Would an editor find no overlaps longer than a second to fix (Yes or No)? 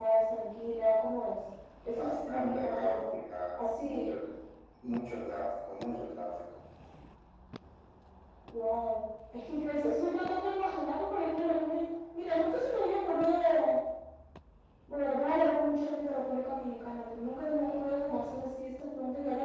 No